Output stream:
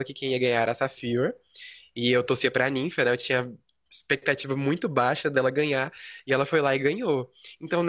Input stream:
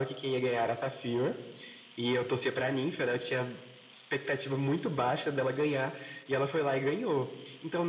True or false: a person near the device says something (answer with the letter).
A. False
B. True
A